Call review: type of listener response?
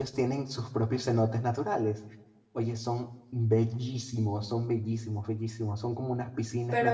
listening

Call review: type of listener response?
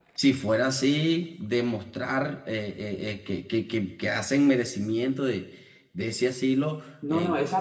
taking over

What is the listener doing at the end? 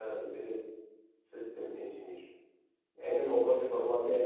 listening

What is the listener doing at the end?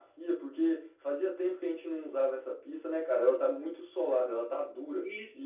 taking over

